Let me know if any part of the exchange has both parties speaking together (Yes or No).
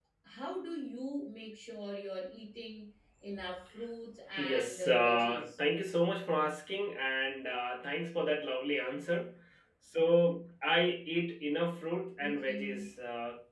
Yes